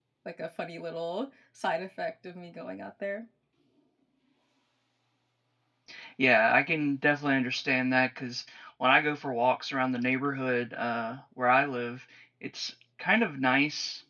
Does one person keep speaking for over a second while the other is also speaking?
No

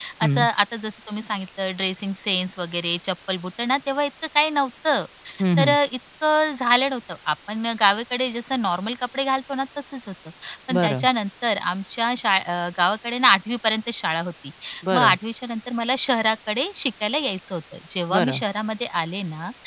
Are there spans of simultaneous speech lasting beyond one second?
No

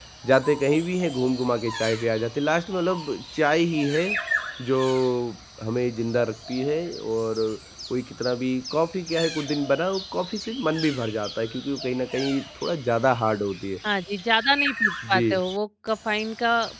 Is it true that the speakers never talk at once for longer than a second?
Yes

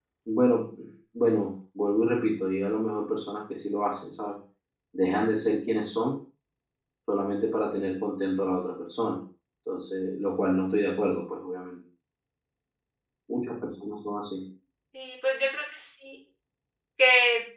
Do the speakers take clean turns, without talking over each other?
Yes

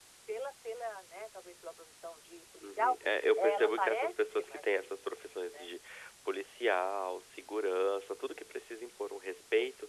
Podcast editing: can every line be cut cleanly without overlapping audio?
No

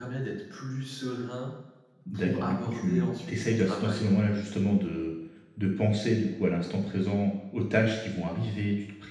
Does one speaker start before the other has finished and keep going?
Yes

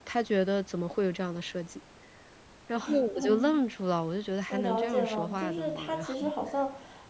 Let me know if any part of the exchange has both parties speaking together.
Yes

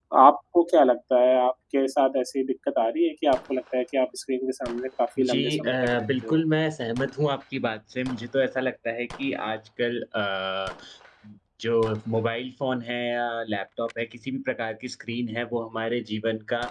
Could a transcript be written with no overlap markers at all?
No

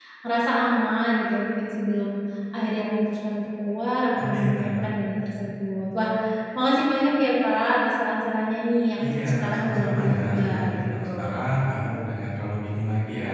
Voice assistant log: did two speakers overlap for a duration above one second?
Yes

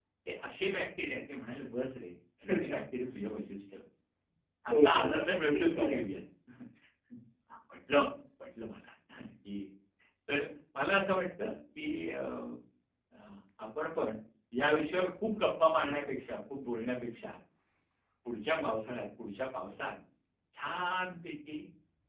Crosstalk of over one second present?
Yes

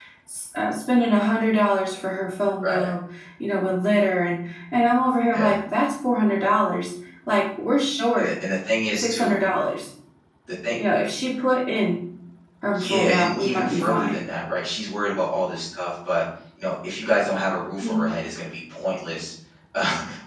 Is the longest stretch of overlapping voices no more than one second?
No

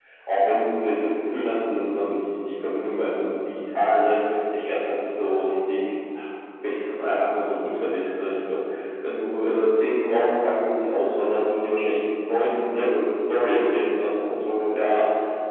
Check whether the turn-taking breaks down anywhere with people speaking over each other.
No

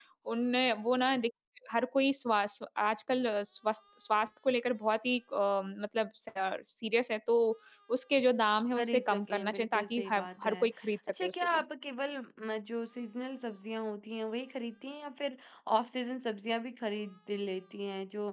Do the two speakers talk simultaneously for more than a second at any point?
Yes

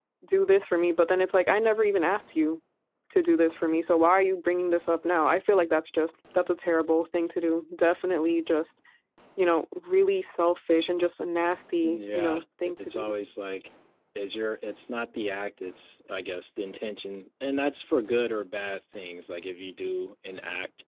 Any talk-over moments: Yes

